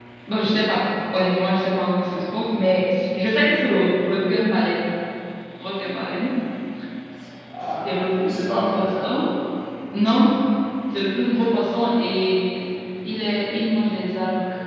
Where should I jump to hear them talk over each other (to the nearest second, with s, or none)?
8 s